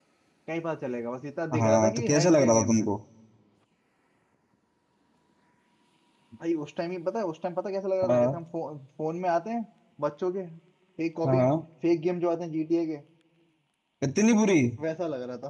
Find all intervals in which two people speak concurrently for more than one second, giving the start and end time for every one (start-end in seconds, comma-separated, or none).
1.6-2.9